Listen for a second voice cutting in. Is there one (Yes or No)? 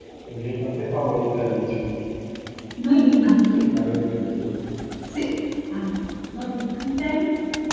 No